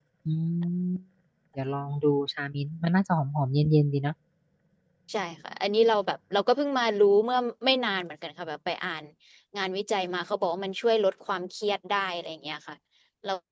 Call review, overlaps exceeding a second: none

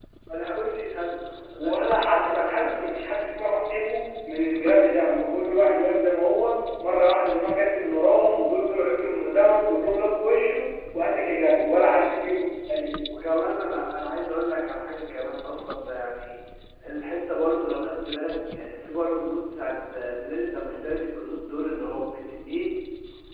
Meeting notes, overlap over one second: present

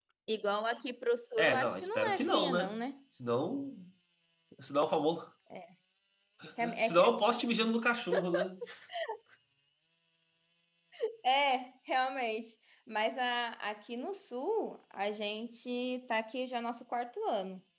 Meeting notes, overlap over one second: present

